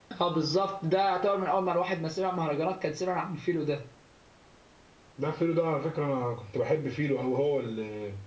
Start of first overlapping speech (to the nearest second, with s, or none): none